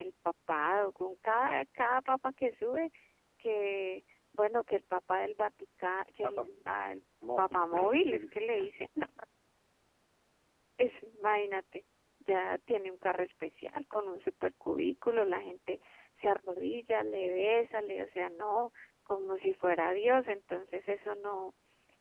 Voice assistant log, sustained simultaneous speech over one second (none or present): present